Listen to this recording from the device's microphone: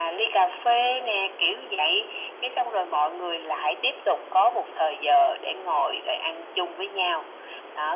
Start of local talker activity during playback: none

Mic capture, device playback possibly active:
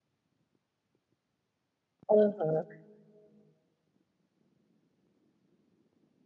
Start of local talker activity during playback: 2 s

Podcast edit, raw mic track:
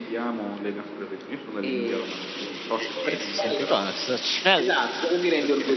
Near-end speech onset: 3 s

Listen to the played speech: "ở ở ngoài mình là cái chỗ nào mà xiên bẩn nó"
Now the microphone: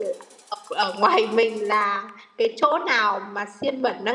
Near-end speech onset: none

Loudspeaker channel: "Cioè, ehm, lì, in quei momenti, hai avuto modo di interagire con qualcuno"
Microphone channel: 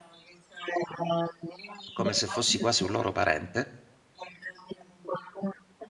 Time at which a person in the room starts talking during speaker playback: 2 s

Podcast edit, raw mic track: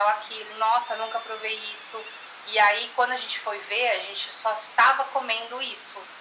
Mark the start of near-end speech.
none

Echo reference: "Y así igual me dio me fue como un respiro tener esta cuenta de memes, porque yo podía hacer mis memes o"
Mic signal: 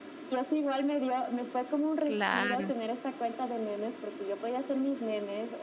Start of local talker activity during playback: 2 s

